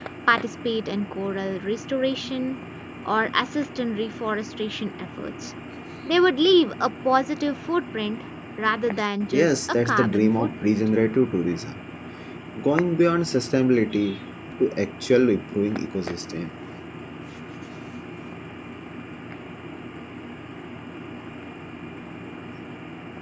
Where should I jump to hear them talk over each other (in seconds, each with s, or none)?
9.3 s